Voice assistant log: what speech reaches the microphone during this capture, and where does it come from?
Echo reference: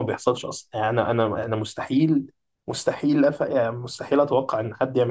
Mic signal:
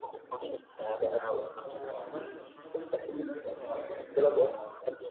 both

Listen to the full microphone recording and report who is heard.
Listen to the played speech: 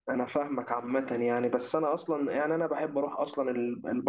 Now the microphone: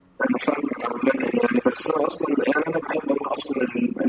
echo only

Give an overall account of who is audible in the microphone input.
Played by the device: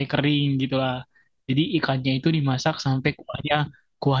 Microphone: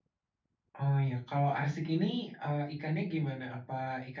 user only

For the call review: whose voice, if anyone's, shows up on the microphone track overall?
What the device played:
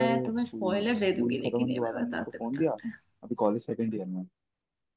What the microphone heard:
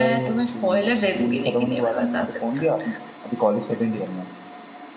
echo only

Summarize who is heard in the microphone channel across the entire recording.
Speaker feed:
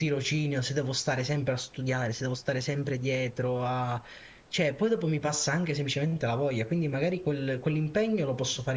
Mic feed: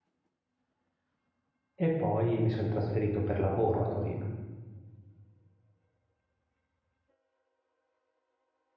user only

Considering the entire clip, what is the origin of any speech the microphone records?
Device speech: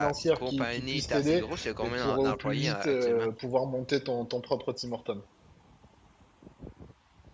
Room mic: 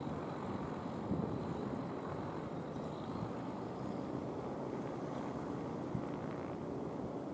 neither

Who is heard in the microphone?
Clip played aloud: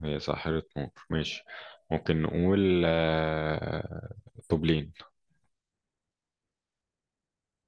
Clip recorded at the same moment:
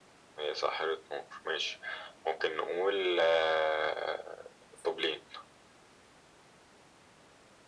echo only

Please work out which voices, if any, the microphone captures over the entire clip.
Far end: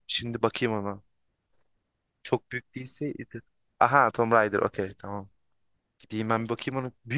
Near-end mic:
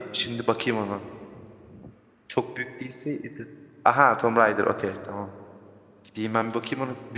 echo only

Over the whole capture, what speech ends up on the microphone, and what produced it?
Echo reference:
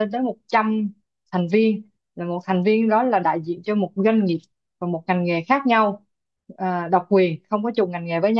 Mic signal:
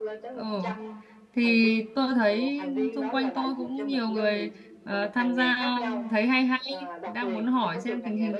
both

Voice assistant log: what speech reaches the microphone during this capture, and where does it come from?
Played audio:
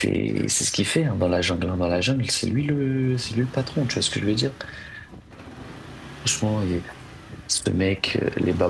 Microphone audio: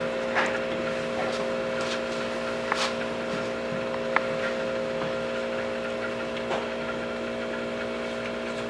neither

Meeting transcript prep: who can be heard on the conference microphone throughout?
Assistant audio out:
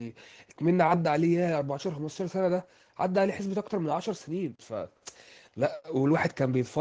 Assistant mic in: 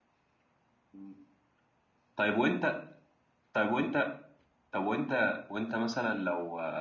user only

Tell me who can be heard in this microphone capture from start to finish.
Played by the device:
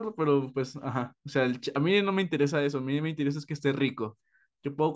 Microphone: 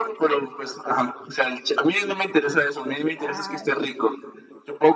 both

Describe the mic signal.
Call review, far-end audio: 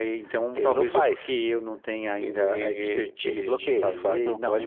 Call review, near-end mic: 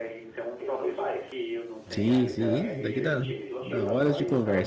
both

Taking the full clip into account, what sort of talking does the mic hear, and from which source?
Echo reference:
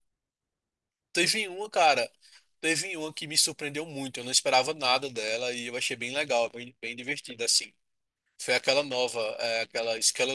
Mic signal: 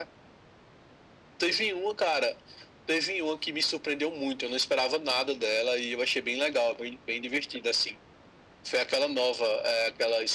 echo only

